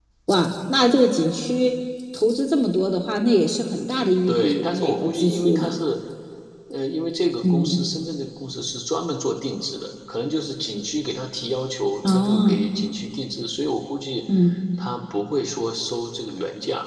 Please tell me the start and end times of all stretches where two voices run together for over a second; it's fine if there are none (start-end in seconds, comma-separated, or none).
4.3-5.7